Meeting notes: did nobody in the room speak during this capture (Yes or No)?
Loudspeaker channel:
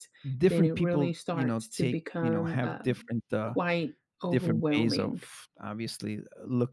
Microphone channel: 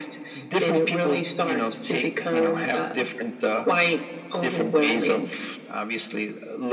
Yes